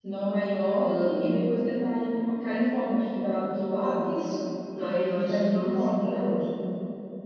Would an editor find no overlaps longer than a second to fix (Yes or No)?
No